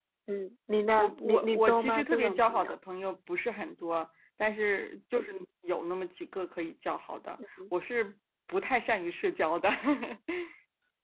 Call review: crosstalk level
present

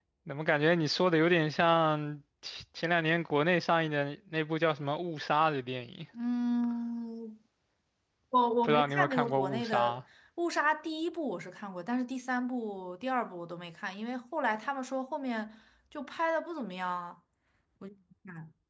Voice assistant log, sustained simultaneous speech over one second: present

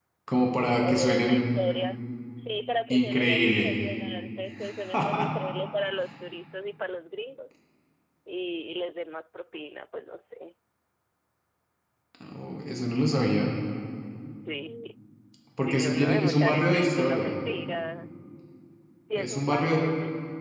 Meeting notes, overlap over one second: present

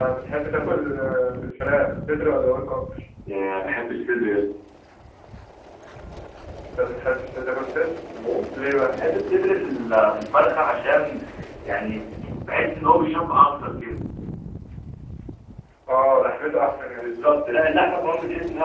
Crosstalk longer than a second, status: none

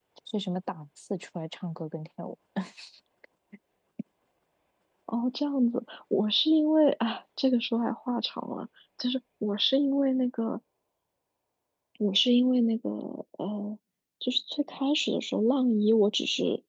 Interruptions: none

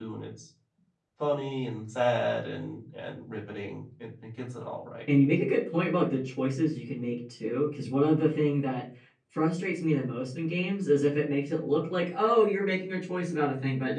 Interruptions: none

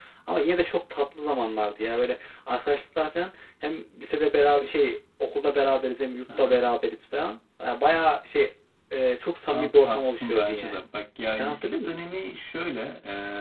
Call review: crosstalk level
present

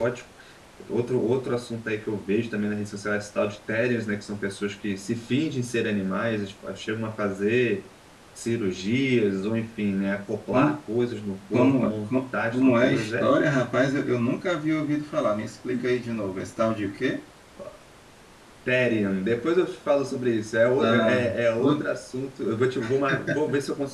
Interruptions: present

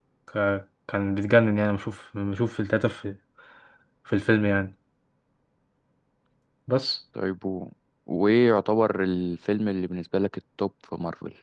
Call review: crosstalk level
none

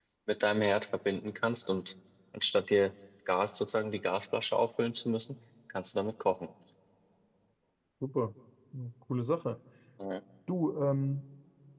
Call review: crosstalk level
none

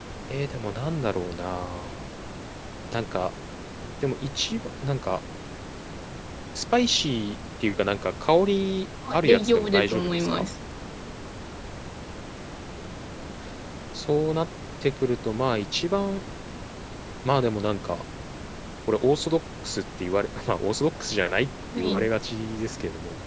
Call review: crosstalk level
present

